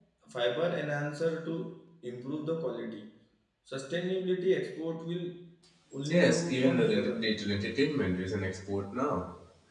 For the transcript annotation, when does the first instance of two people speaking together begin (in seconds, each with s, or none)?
6.1 s